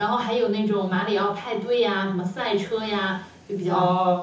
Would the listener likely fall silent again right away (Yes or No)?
No